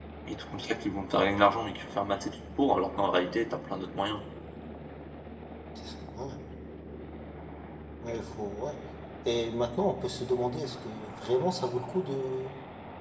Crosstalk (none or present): none